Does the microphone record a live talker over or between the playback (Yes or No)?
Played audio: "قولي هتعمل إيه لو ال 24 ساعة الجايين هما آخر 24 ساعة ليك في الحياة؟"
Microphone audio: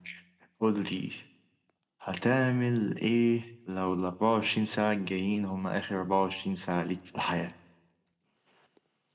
No